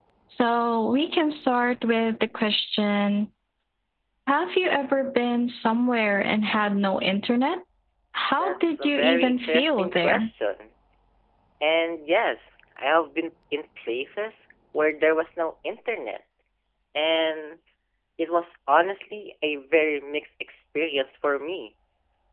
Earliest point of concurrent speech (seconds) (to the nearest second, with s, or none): 8 s